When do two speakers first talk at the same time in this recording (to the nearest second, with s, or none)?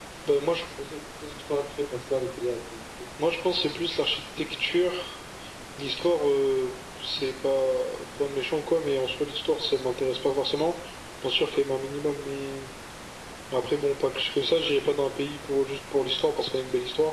none